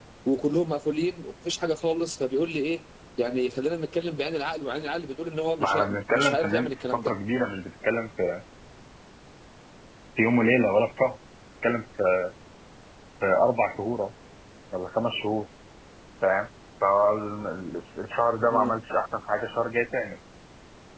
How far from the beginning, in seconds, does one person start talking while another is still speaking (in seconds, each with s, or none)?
5.6 s